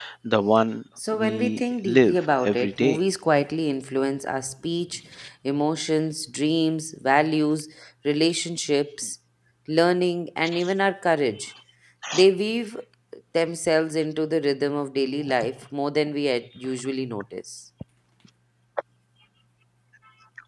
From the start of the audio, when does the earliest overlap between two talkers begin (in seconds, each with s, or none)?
1.1 s